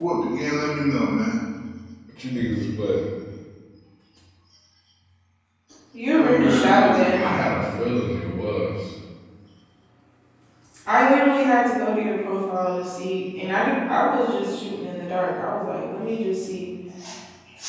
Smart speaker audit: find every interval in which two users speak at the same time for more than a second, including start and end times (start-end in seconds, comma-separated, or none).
6.1-7.9